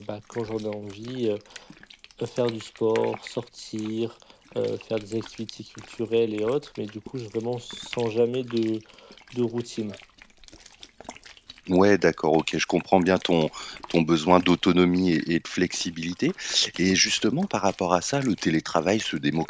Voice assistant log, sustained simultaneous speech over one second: none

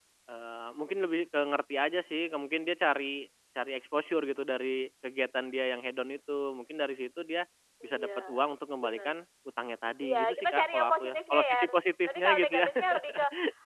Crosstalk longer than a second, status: present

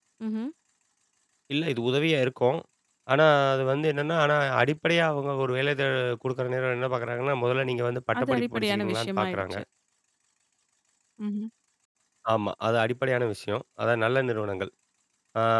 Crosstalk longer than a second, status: present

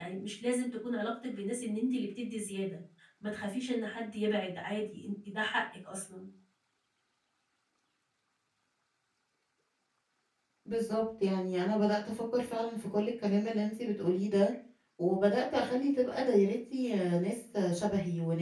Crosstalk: none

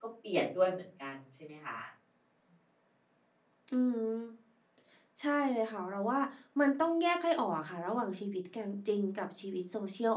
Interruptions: none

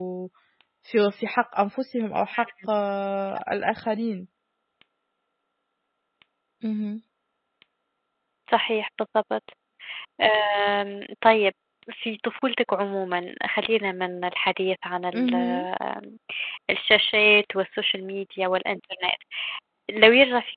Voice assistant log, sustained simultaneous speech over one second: none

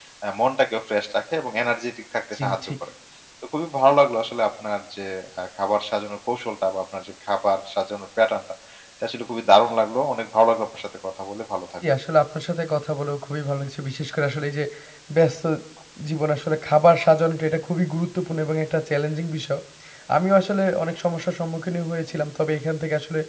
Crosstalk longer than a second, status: none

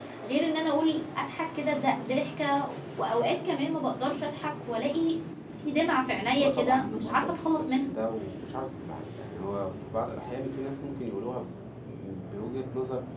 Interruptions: present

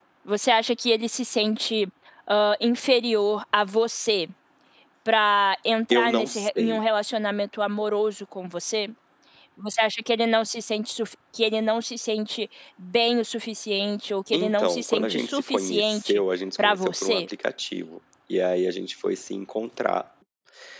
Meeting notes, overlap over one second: present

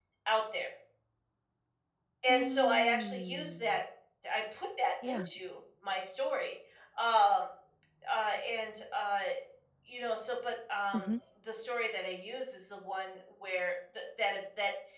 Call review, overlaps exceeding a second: present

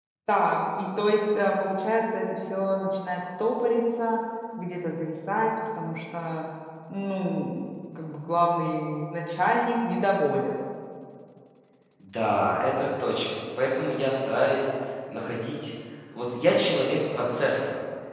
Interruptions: none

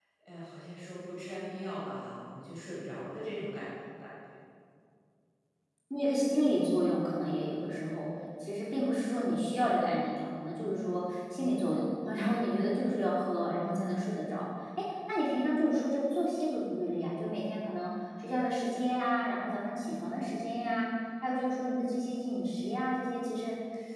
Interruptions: none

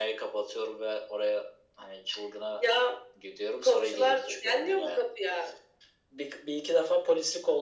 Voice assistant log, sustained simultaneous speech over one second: present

